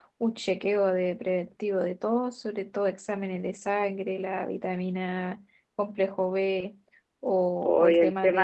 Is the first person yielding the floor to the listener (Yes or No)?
Yes